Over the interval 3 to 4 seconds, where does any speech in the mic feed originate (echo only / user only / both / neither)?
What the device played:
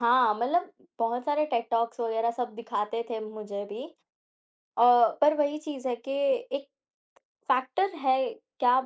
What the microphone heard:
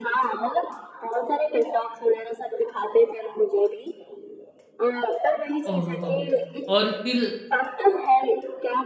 echo only